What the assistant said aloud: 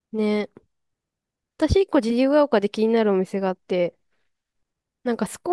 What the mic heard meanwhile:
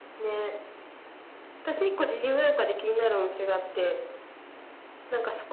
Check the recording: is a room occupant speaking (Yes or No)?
No